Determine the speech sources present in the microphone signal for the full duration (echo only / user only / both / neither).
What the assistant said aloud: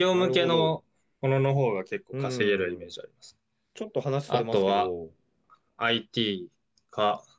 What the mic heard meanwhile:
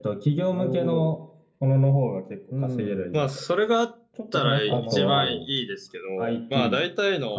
both